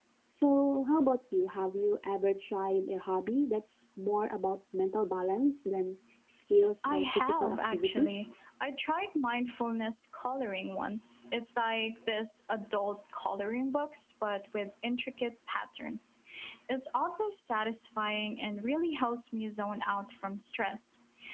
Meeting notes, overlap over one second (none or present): present